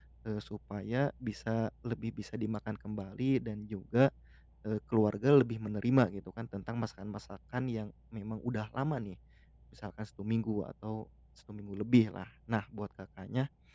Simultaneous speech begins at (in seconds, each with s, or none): none